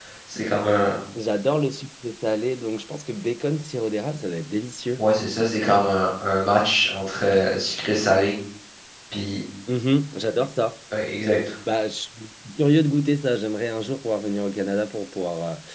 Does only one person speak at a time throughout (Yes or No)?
Yes